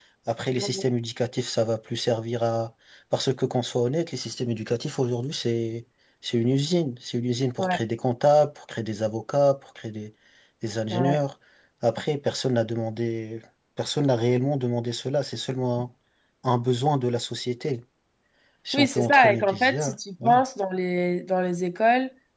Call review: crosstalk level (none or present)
present